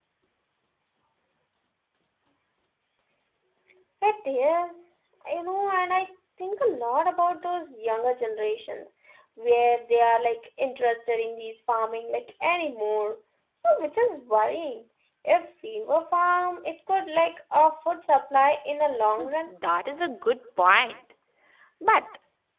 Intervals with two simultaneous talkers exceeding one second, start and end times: none

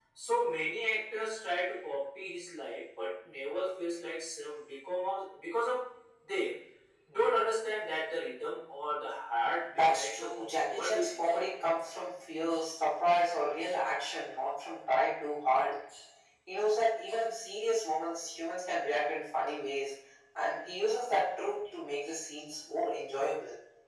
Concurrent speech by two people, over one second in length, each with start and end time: 9.8-11.5

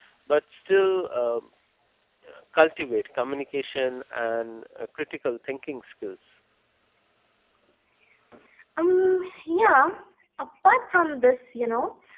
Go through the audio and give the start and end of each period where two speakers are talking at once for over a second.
none

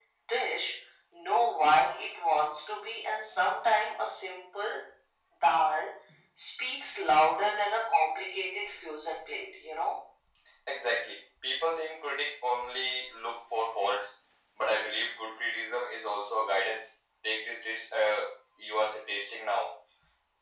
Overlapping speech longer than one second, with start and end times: none

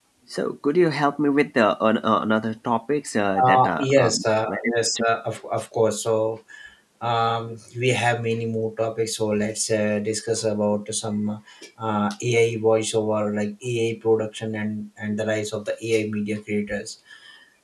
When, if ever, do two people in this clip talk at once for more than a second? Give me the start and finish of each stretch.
3.4-5.0

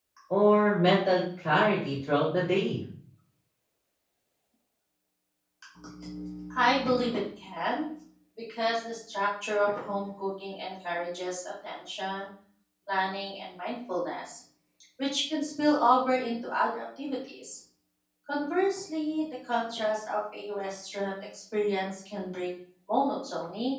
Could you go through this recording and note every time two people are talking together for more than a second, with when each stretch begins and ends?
none

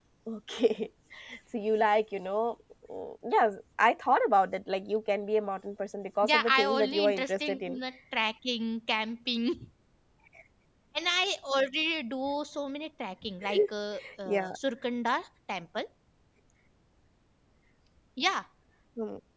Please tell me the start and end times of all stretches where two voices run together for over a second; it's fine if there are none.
6.2-7.8

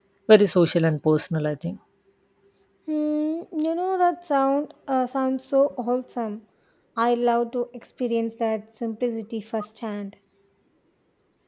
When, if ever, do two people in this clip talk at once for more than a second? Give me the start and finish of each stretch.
none

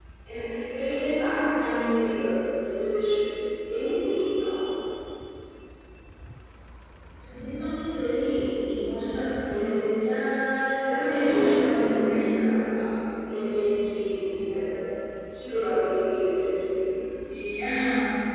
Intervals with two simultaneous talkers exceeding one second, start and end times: 10.9-12.6

